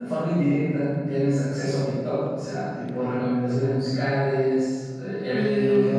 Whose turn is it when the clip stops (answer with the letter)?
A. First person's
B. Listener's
A